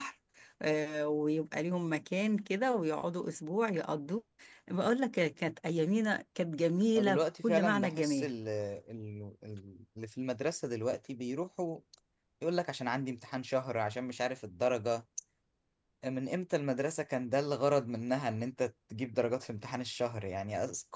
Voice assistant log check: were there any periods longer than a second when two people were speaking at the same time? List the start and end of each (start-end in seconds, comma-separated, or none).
7.0-8.3